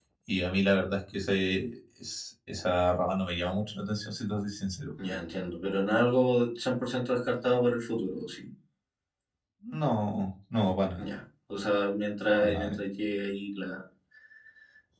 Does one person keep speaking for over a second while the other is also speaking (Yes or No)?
No